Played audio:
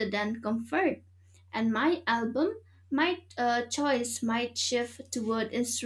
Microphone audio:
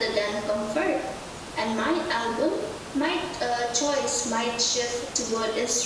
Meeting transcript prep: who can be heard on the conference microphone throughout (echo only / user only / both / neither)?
echo only